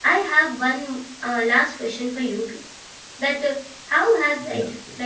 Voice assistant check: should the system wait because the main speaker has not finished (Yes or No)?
Yes